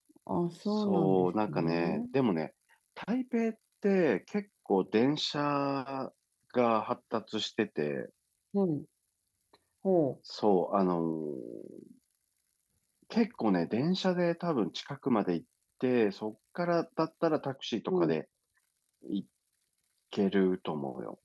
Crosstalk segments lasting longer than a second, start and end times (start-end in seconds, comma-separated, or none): 0.6-2.1